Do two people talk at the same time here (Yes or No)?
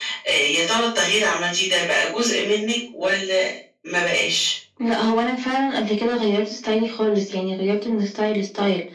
No